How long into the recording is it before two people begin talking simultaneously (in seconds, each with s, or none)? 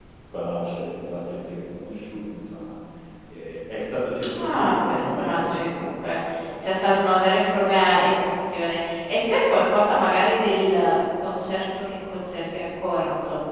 4.2 s